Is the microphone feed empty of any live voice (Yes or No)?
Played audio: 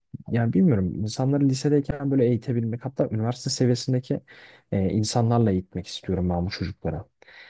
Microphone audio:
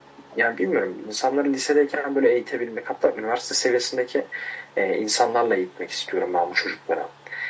Yes